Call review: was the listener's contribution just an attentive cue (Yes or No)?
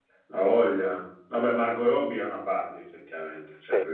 Yes